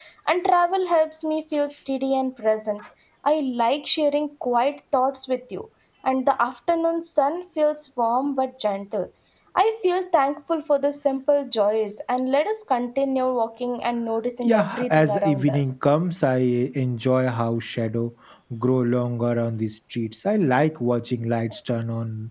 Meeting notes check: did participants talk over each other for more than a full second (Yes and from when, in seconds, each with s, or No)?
Yes, from 14.4 s